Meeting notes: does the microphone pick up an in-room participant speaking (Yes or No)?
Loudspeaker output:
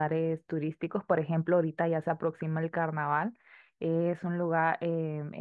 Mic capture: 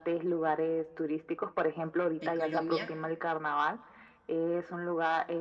Yes